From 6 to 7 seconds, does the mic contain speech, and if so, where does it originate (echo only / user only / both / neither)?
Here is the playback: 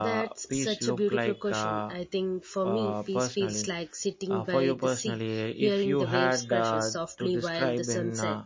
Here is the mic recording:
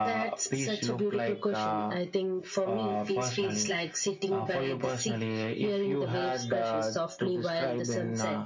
echo only